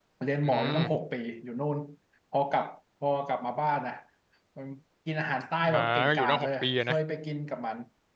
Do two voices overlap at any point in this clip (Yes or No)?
Yes